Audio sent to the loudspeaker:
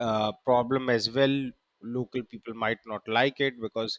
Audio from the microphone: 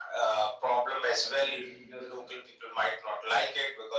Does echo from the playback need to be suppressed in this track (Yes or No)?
Yes